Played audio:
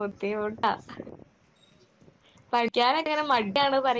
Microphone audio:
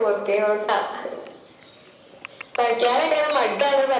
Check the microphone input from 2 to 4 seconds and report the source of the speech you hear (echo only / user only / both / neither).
echo only